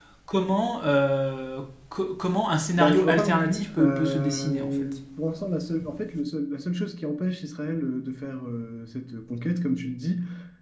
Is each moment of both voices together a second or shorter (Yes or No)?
No